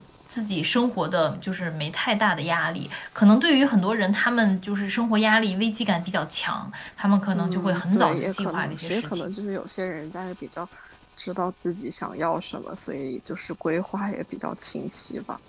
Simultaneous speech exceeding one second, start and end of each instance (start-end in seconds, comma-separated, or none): 7.3-9.3